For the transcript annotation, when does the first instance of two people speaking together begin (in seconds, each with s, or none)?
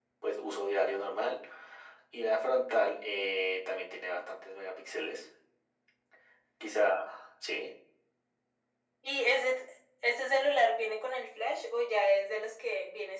none